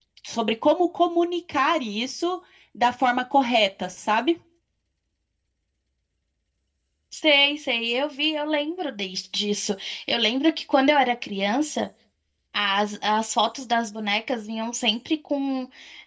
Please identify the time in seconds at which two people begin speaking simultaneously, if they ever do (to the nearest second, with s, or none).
none